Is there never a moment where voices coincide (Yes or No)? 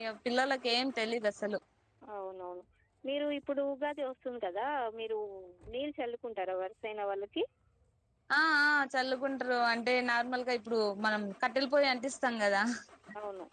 Yes